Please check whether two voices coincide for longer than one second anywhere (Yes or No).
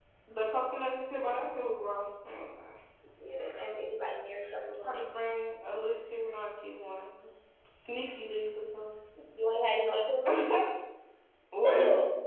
No